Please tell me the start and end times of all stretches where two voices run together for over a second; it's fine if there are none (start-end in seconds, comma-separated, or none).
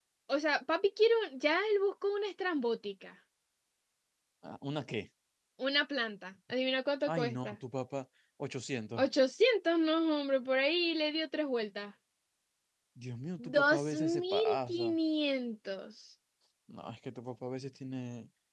13.4-15.0